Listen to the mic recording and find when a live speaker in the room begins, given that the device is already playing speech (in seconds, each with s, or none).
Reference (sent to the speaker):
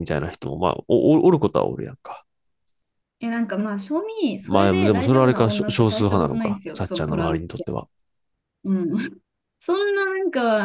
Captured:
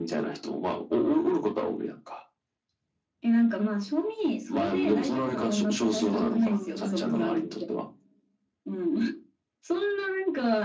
5.4 s